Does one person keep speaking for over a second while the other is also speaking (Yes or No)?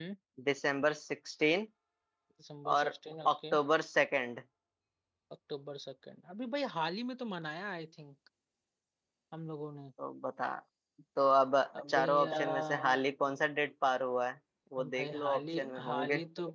Yes